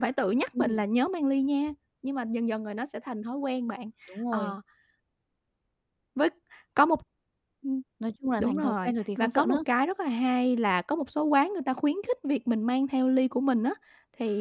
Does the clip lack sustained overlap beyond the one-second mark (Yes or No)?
No